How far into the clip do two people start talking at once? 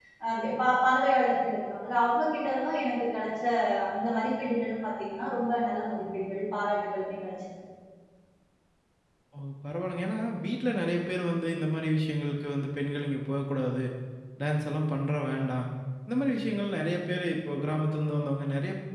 none

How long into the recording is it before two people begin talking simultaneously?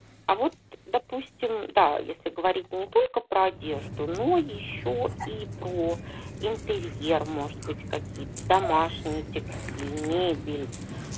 none

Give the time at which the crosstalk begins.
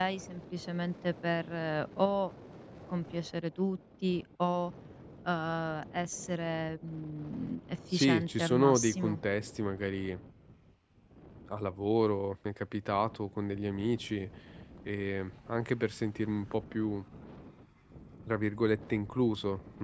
7.9 s

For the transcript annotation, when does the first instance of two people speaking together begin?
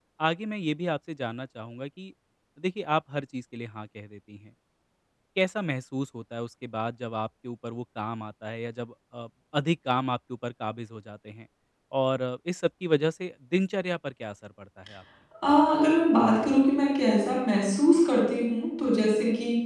none

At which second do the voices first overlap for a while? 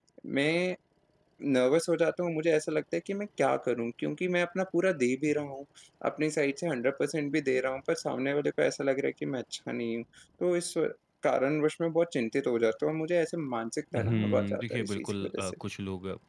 13.9 s

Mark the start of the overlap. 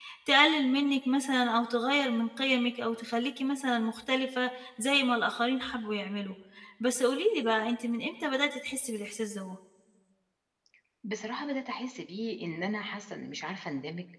none

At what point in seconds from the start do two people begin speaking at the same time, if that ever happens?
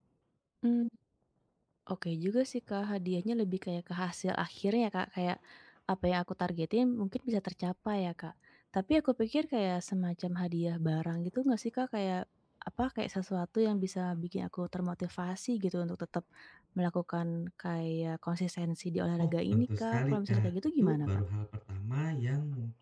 19.2 s

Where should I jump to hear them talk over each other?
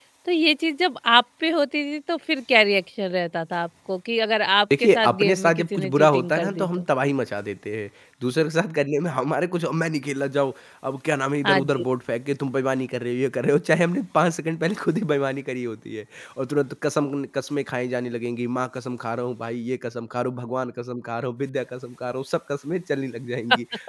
4.8 s

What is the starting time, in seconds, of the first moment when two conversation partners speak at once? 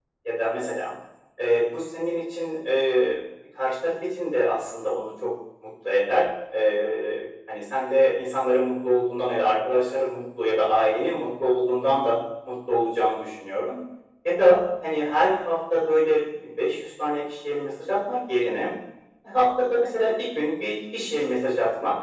none

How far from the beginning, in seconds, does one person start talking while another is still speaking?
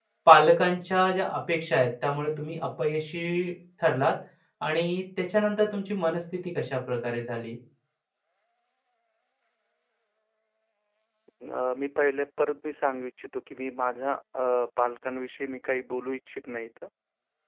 none

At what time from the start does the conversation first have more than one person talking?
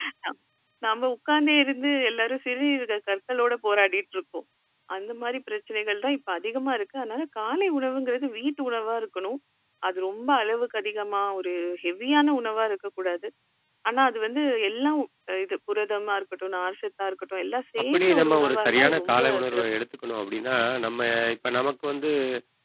17.8 s

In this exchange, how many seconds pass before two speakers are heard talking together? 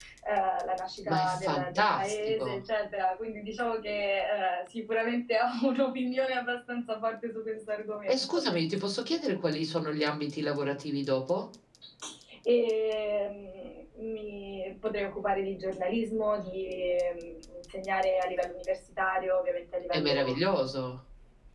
1.1 s

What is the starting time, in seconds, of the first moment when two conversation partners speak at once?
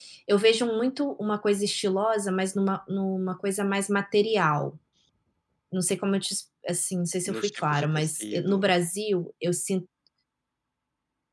7.3 s

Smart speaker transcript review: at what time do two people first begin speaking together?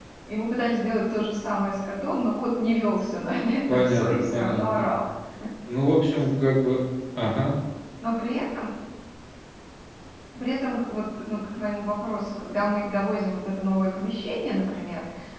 3.7 s

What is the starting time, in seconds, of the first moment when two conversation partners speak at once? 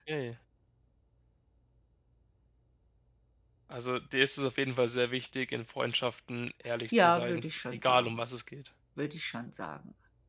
6.9 s

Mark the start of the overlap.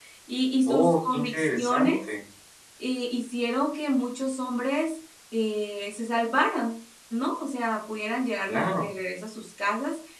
0.7 s

